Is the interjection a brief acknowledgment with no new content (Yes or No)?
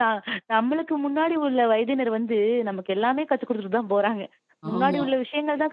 Yes